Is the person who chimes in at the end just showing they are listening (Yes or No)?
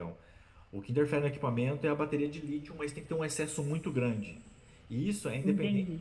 Yes